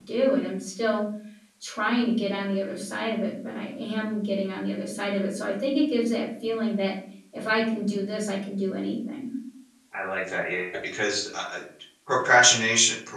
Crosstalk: none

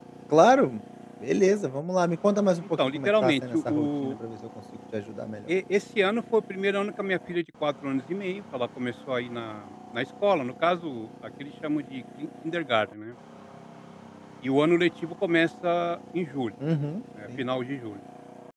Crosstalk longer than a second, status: present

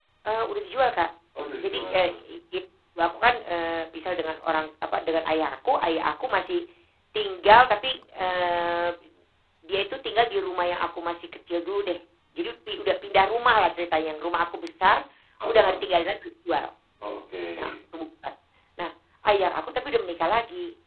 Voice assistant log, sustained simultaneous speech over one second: none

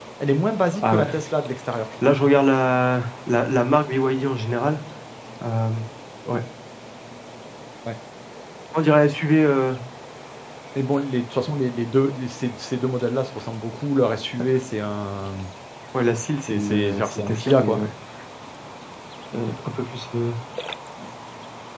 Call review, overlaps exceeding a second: present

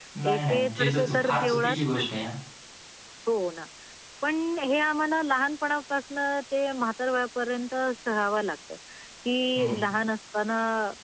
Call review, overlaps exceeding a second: present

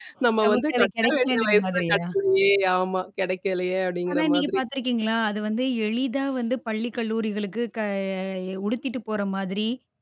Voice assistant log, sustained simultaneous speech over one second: present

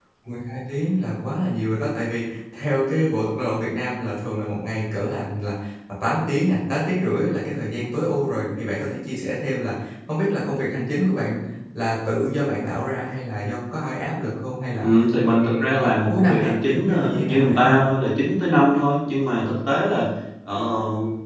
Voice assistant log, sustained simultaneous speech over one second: present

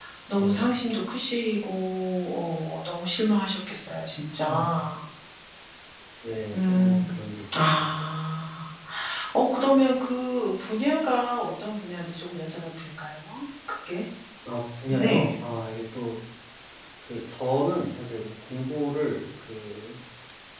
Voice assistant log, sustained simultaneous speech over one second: none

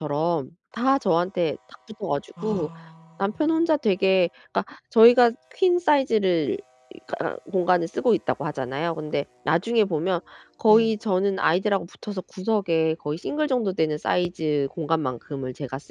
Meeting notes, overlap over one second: none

